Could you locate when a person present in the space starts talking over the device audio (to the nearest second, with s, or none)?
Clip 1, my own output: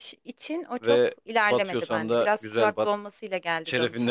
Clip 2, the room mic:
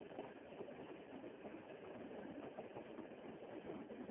none